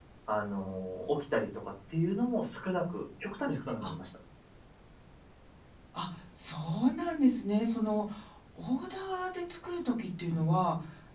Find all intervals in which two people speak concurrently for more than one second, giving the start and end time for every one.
none

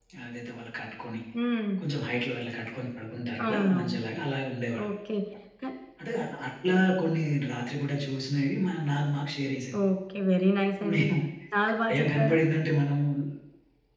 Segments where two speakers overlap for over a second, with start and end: none

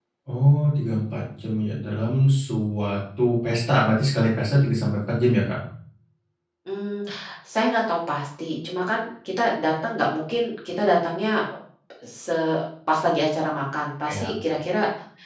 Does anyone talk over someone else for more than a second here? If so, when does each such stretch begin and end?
none

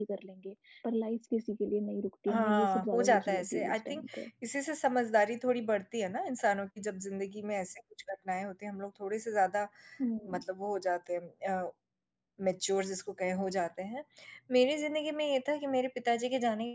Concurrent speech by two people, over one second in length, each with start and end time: 2.3-4.0

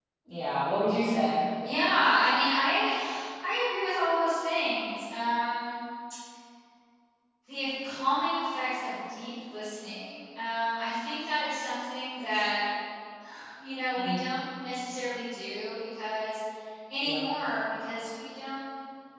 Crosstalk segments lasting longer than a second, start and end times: none

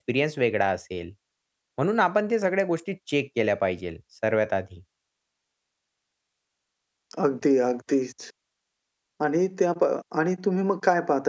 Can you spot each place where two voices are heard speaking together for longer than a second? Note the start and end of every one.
none

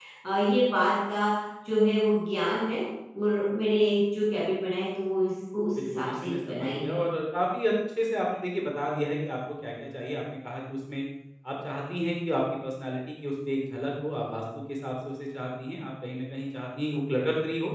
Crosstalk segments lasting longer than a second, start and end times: 5.8-7.0

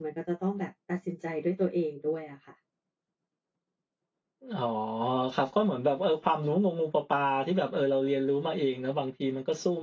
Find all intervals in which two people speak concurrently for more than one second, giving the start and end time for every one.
none

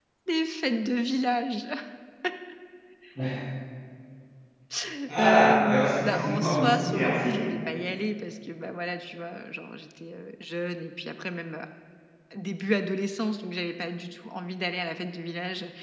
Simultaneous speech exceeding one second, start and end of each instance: 5.2-7.4

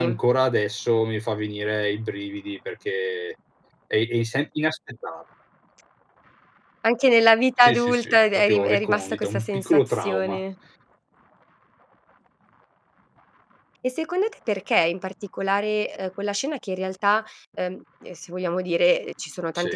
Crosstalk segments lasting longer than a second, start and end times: 7.6-10.4

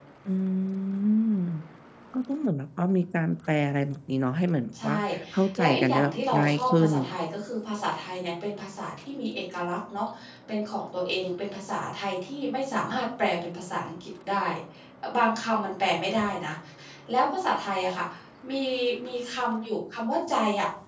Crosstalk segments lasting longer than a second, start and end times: 5.6-6.9

